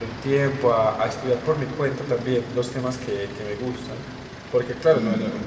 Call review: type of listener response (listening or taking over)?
listening